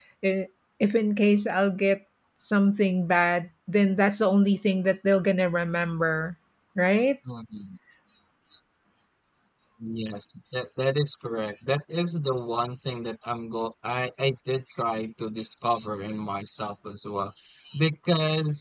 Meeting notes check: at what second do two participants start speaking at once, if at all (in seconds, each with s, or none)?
none